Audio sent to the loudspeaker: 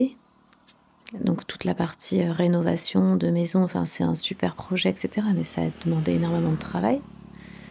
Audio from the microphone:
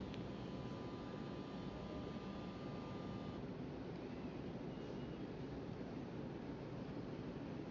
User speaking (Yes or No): No